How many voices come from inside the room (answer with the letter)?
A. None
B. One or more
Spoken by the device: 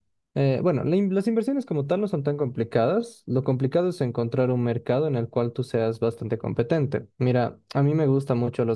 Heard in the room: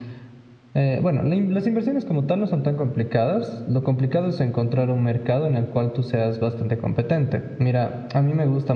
A